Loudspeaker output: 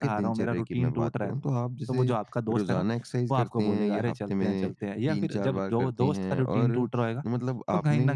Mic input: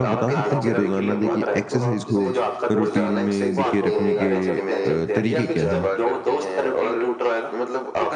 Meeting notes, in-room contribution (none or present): present